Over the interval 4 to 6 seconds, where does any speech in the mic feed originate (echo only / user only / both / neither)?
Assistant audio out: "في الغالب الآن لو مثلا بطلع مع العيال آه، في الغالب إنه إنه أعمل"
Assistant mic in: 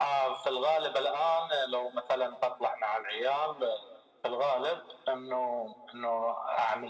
echo only